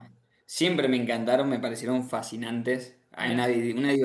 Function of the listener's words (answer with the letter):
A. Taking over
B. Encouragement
B